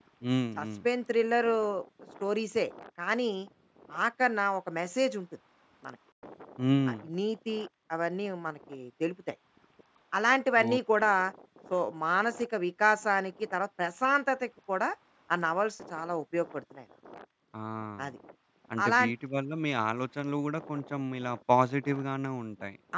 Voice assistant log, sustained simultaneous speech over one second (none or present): none